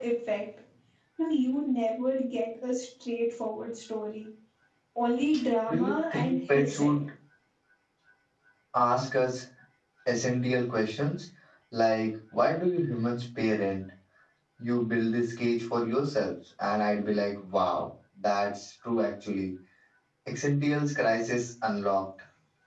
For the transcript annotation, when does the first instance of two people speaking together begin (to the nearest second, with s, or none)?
6 s